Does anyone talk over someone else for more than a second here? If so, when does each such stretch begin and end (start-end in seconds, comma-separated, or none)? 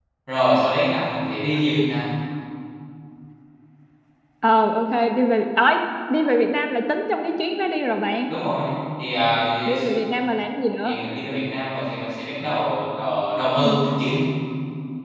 none